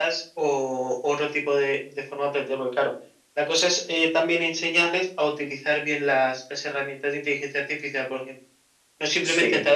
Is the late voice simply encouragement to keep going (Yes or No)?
Yes